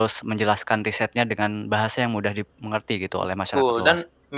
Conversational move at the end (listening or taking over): taking over